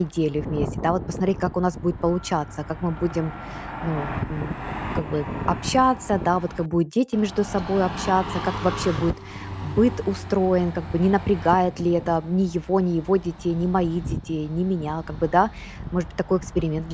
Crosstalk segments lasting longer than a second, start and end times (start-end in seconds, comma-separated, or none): none